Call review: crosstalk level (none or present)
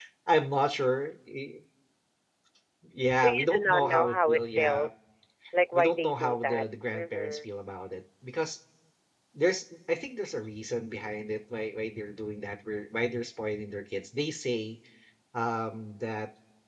present